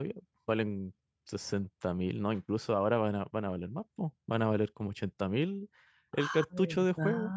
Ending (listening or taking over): taking over